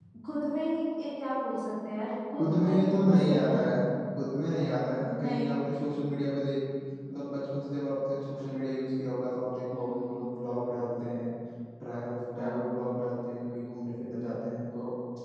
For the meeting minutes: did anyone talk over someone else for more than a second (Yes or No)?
Yes